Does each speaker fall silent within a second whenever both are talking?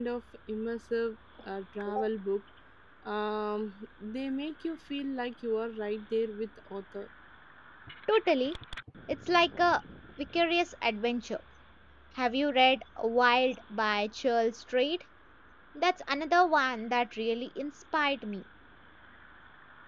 Yes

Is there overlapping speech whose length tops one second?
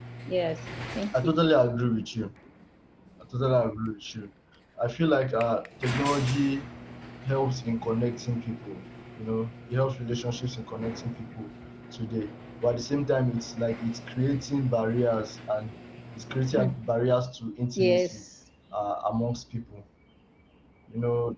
No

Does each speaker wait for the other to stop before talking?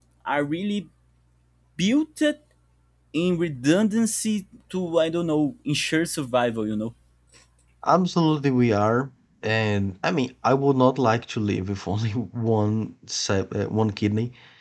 Yes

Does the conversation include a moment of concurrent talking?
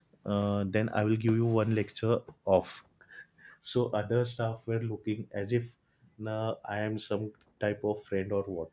No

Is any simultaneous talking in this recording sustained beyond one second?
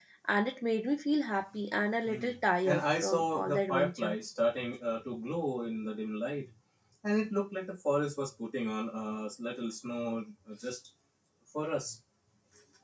Yes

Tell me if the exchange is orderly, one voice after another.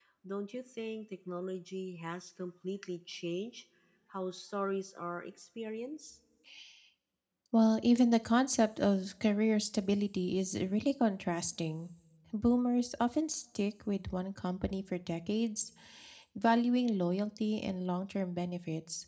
Yes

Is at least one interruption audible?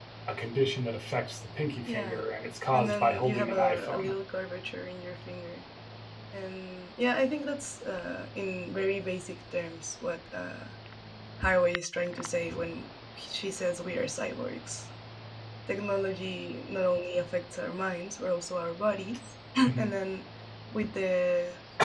Yes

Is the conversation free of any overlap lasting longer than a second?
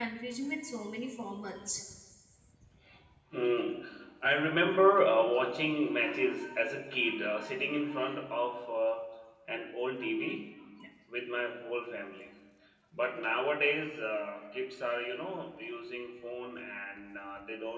Yes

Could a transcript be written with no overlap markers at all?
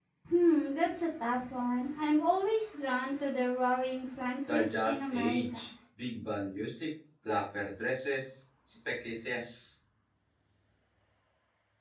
No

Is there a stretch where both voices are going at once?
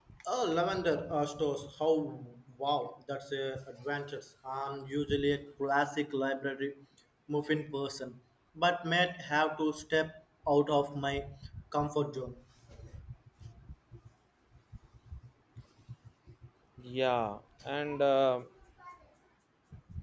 No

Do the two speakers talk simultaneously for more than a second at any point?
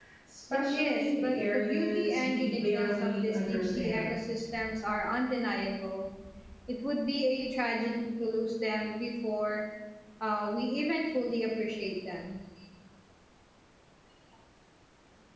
Yes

